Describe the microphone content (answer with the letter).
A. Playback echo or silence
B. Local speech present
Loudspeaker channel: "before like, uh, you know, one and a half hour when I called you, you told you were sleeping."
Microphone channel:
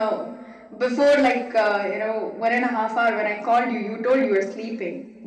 A